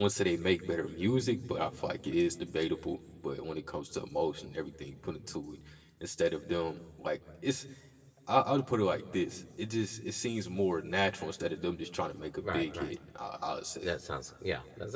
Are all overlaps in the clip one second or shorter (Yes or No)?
Yes